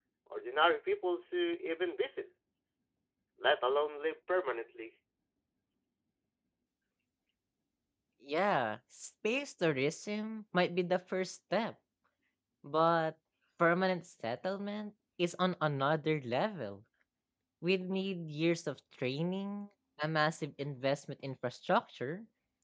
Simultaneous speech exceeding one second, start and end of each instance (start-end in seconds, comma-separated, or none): none